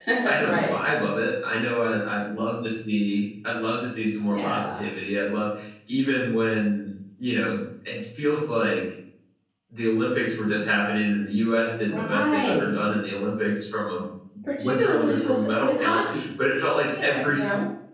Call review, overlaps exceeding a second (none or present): present